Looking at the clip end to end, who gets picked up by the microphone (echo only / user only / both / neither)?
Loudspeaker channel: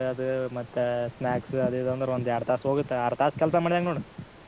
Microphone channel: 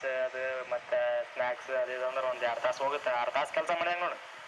echo only